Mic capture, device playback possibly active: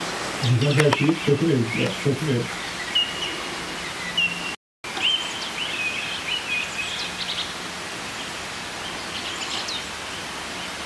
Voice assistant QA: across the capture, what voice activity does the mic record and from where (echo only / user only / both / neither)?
user only